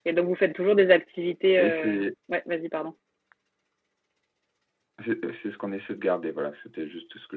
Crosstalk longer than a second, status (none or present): none